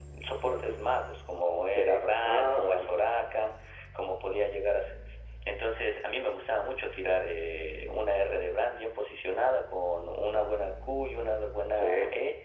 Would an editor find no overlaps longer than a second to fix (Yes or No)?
No